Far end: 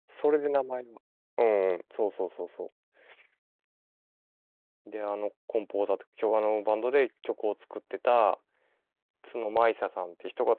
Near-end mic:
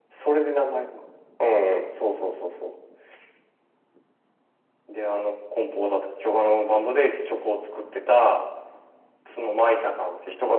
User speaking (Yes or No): No